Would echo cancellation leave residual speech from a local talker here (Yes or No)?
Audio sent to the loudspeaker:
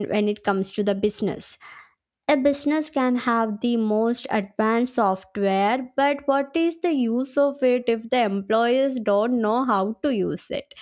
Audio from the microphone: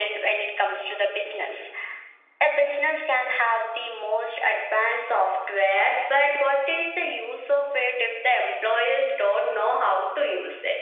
No